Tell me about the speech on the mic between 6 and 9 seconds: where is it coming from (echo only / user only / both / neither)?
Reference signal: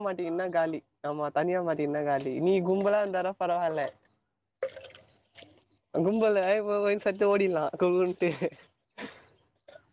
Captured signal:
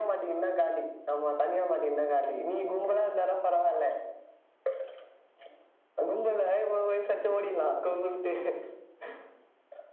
echo only